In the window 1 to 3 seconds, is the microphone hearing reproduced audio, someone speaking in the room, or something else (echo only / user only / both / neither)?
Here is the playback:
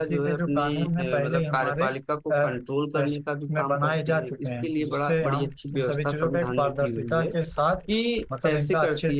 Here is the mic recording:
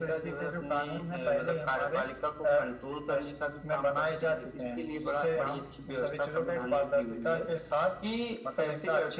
echo only